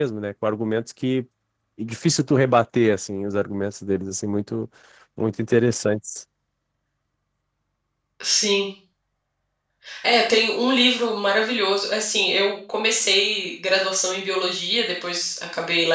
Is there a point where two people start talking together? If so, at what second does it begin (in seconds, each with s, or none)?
none